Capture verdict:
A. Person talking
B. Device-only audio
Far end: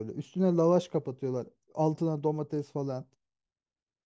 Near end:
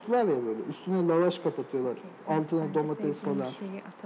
A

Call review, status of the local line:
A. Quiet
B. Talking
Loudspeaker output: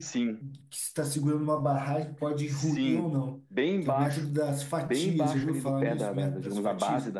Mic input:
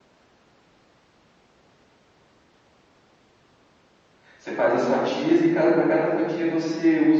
B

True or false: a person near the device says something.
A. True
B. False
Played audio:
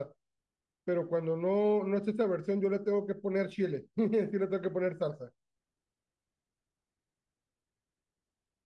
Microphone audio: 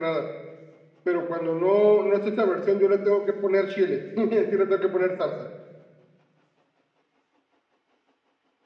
B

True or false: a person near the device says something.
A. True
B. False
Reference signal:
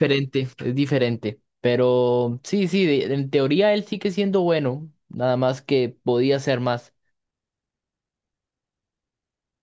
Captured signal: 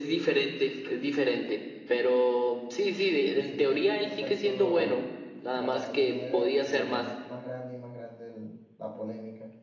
A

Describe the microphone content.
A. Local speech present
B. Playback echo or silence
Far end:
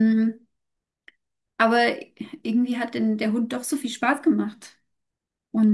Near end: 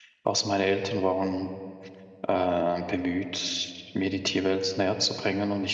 A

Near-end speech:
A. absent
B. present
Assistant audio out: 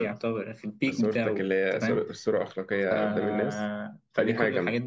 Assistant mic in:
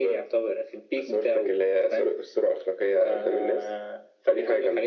A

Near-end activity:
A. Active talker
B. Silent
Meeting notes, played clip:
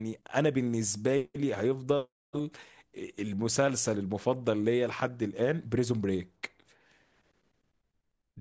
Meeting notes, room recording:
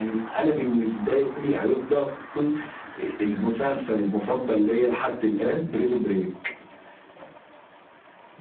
B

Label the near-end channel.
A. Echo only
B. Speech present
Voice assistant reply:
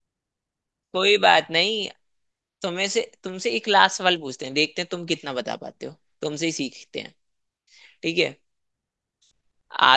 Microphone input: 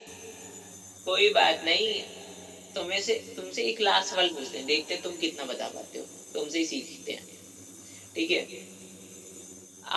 A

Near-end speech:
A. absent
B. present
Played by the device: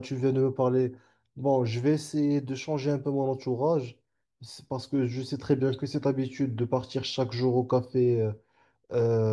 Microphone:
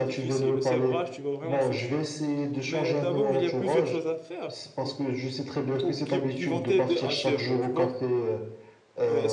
B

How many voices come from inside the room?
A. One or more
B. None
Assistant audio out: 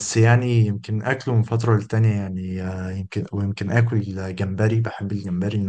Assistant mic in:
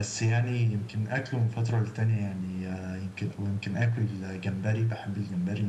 B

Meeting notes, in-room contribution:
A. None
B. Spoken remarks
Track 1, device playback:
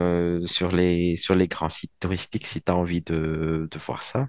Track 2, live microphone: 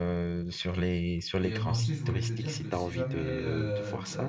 B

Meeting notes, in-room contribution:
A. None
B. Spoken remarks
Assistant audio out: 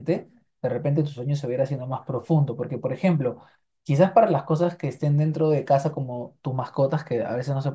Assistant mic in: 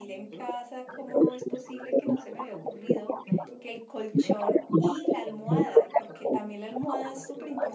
B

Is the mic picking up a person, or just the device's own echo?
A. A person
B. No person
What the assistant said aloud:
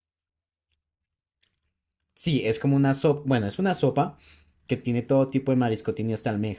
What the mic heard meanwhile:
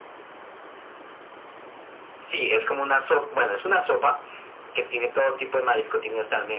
B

